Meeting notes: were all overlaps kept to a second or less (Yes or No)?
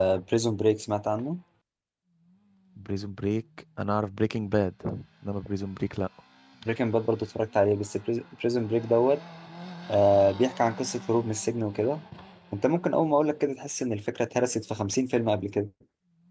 Yes